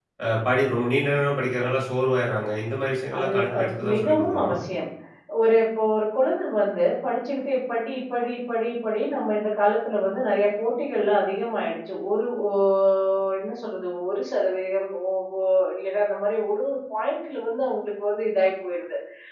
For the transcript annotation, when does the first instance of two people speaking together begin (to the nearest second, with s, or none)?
3 s